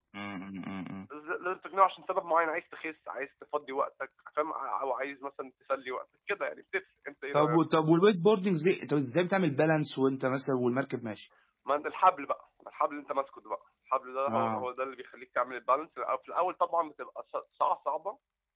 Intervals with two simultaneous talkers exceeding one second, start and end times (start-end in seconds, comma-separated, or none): none